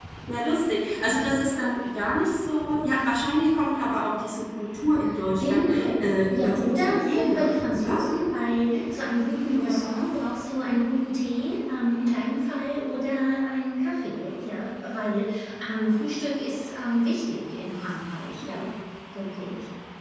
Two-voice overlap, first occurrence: 5.4 s

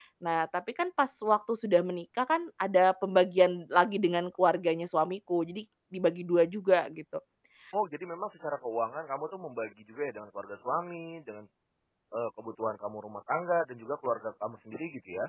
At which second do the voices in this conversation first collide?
none

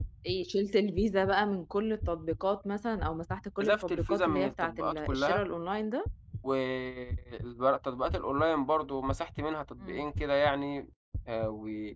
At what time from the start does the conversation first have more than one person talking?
3.6 s

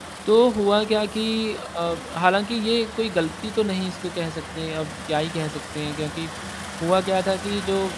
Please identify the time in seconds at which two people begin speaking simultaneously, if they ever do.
none

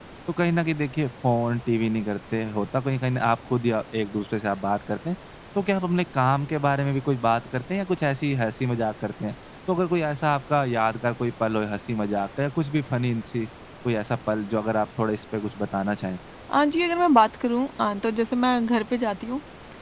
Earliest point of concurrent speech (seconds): none

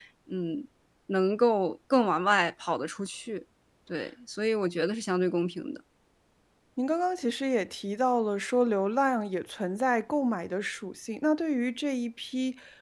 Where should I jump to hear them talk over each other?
none

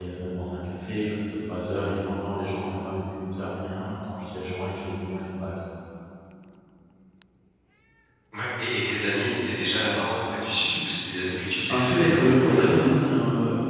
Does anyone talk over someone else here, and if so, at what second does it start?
11.4 s

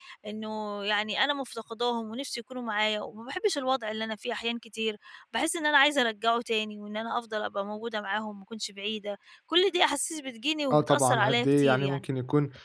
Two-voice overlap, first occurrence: 10.7 s

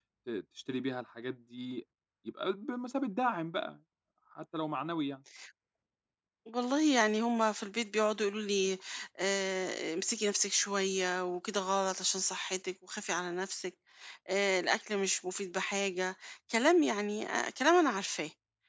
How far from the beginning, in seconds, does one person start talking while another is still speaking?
none

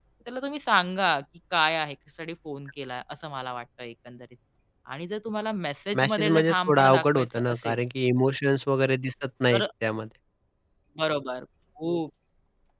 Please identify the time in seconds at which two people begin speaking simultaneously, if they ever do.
5.9 s

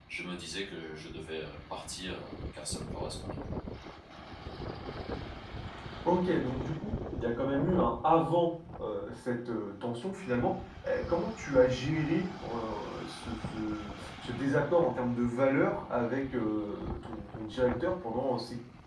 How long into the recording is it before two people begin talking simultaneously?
none

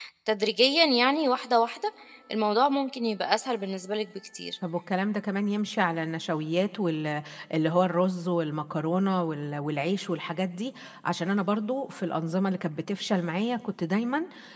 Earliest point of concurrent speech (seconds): none

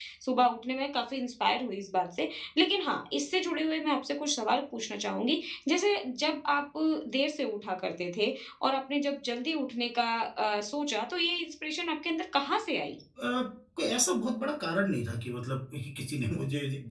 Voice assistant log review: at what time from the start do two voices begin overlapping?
none

